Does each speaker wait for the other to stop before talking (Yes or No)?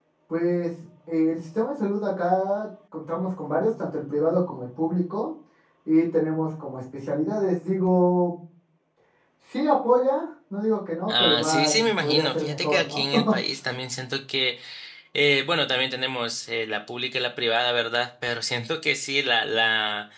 No